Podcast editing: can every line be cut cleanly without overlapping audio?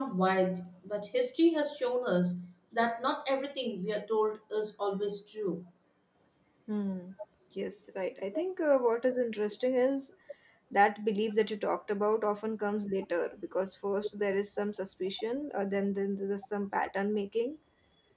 Yes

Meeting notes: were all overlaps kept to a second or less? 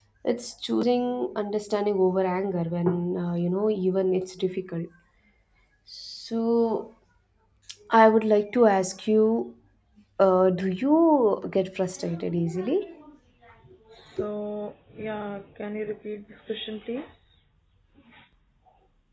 Yes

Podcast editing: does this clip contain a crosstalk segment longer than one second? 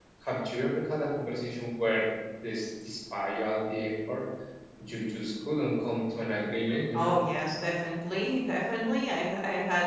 No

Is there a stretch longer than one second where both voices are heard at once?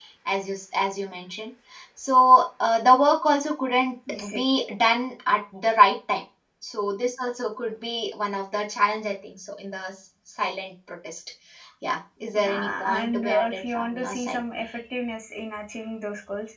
Yes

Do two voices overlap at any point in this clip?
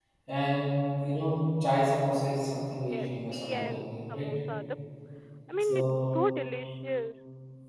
Yes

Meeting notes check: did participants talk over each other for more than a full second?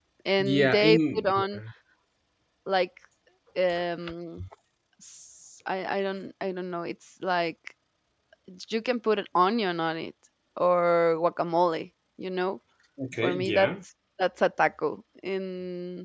Yes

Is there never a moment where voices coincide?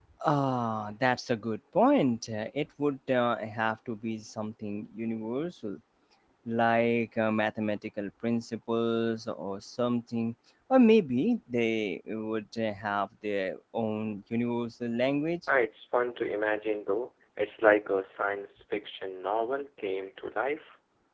Yes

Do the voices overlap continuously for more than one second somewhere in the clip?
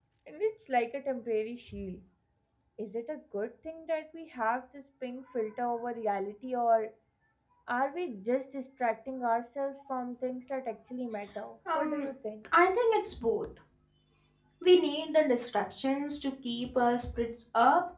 No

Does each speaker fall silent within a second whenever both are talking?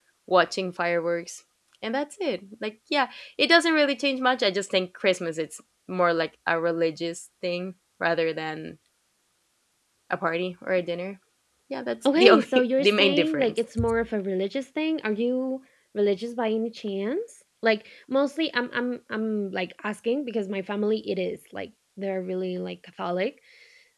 No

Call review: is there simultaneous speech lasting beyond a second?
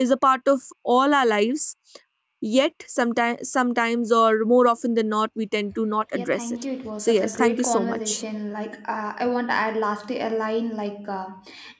Yes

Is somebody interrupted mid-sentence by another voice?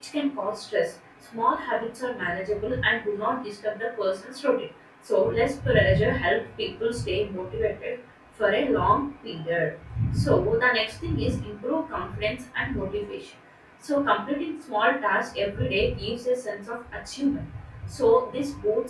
No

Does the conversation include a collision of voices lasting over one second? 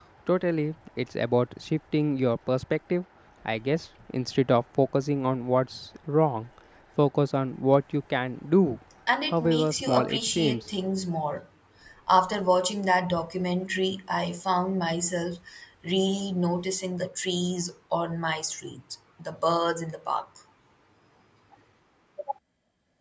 Yes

